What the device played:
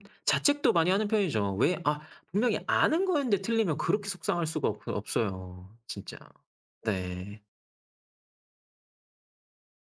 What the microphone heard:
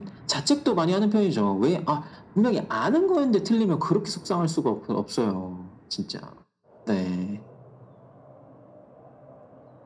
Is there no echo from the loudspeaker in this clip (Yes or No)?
No